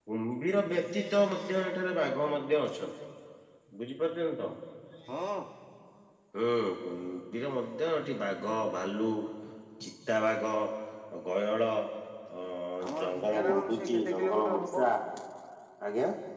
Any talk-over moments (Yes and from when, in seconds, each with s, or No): Yes, from 12.9 s